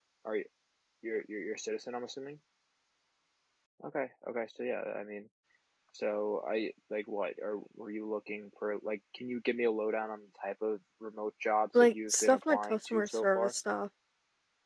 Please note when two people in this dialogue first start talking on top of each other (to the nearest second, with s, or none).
12 s